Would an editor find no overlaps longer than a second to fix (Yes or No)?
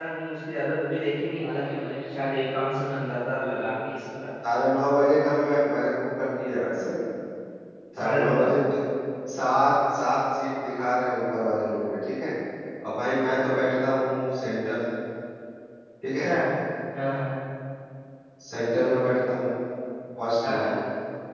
Yes